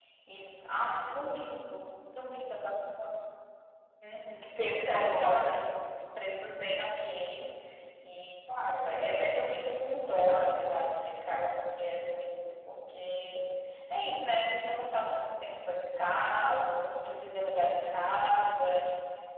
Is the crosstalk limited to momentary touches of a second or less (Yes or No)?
No